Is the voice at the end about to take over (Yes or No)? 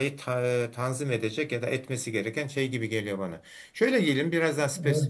No